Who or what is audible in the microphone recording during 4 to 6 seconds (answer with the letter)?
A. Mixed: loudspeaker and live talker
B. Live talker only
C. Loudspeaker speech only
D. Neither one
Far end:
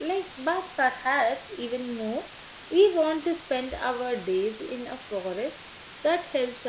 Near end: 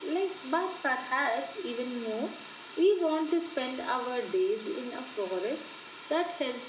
C